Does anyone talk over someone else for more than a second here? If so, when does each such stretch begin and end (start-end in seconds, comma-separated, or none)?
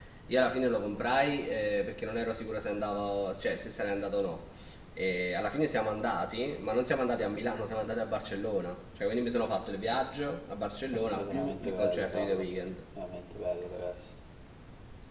11.1-12.4